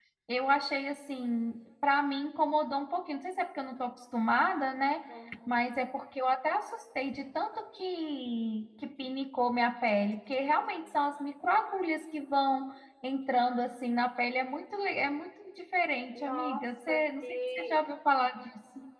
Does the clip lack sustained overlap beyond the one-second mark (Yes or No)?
No